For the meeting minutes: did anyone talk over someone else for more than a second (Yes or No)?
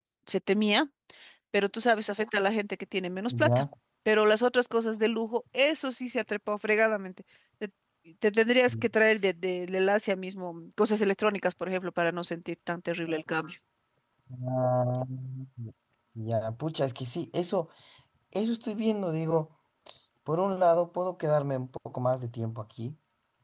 No